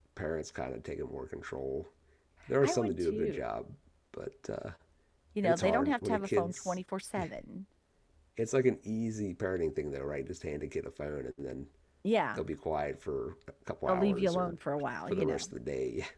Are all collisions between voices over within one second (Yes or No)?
No